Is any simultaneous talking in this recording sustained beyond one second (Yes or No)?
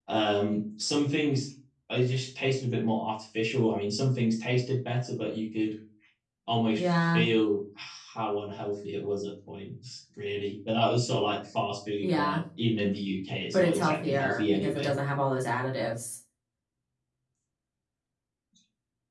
Yes